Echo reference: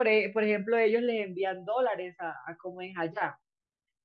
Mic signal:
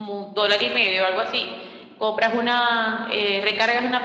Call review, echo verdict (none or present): none